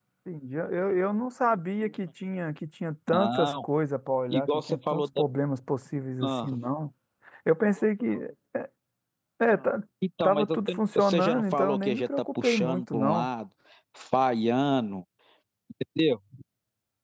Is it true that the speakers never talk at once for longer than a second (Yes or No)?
No